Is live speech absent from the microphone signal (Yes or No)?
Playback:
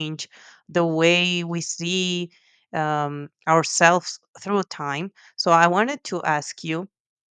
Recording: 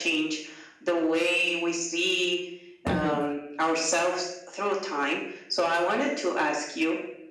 No